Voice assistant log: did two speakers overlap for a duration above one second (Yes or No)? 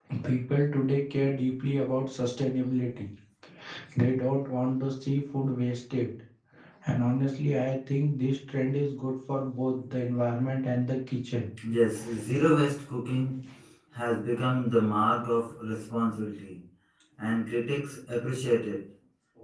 No